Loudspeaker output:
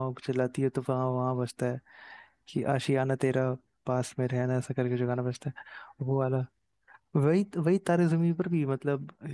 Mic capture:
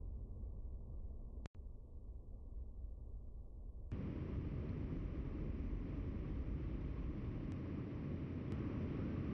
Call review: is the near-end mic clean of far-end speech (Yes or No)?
Yes